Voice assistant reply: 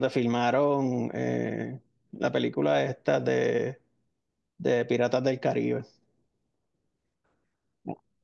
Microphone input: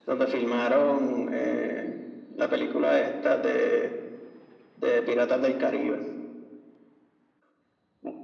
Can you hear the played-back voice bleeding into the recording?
Yes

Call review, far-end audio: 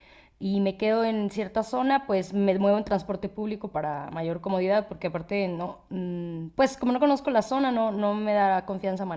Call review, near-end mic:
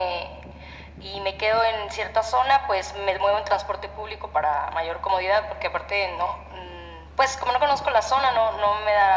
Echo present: Yes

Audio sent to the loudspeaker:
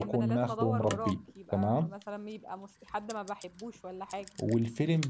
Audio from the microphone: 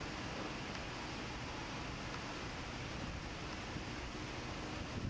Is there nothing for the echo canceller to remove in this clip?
Yes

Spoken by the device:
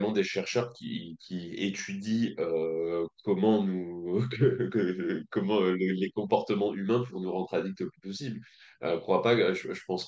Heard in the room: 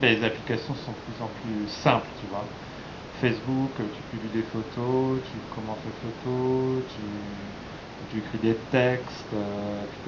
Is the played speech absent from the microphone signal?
Yes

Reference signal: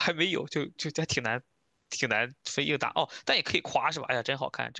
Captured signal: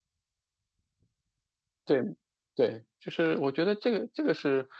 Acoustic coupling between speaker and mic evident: No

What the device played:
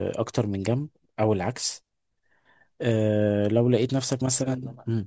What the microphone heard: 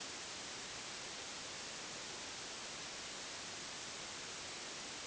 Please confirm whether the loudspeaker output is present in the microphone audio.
No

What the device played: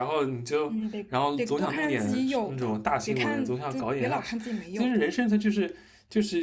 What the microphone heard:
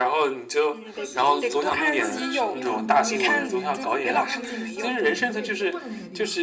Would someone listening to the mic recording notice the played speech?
Yes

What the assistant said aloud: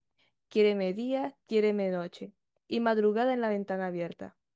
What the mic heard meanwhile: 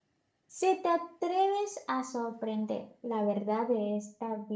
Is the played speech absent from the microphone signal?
Yes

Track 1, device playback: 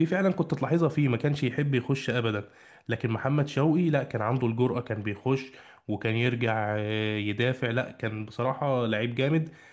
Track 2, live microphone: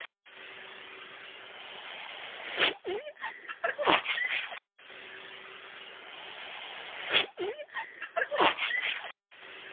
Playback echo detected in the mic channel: No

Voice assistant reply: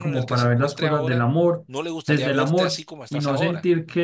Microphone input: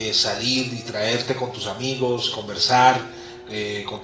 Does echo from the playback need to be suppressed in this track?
No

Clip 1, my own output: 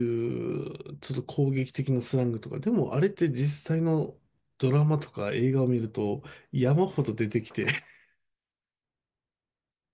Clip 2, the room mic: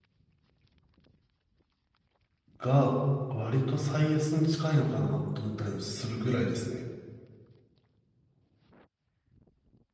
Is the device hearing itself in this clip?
No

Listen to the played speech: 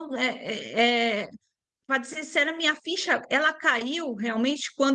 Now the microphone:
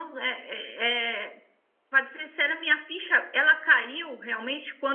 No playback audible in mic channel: No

